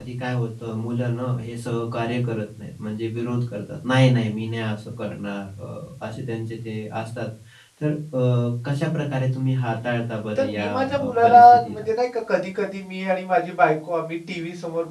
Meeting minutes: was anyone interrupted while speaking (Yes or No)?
Yes